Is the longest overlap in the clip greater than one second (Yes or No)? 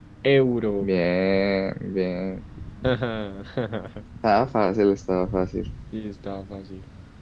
No